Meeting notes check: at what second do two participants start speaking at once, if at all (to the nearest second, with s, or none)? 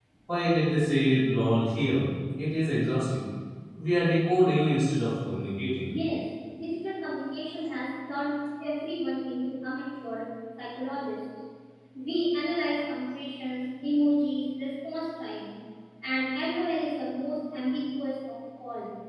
none